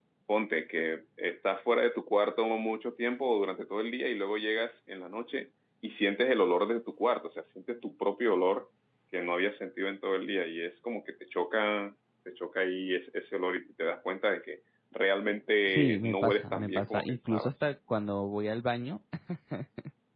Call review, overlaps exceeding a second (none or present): present